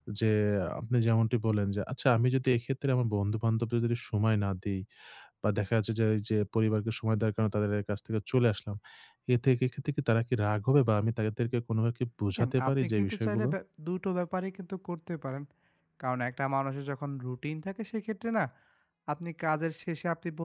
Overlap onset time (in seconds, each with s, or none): 12.3 s